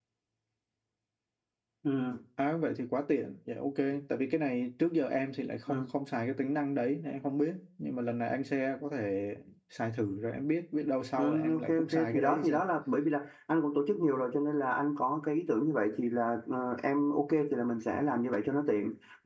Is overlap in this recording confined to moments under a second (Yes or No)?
No